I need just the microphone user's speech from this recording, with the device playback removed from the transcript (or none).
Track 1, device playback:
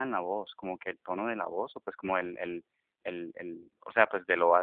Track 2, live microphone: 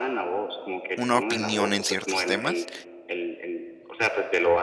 una opinión en ciertos temas